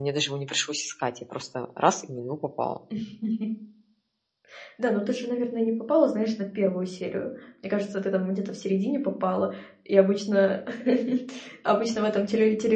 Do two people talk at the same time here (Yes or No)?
No